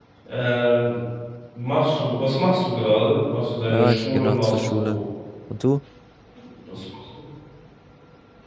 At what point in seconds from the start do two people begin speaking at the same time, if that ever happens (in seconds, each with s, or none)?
3.7 s